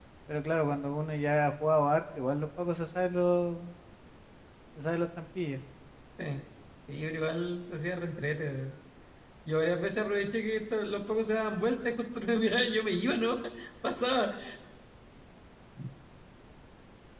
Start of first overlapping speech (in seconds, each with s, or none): none